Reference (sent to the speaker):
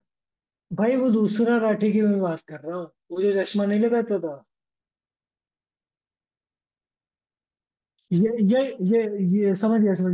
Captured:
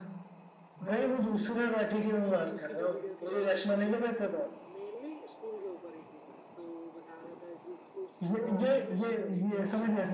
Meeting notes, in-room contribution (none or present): present